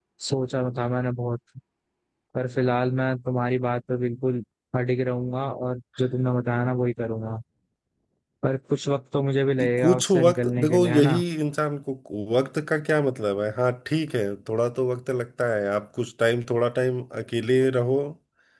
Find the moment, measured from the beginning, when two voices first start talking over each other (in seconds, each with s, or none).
9.6 s